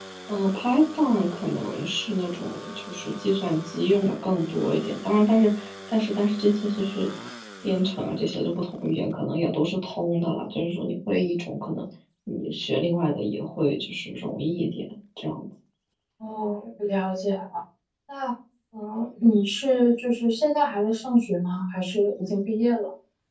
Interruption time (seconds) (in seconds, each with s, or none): none